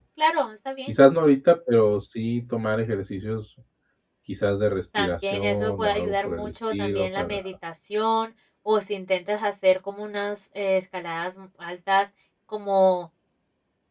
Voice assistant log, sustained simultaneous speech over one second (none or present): present